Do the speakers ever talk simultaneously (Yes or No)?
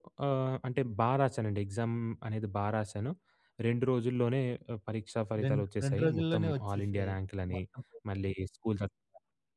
Yes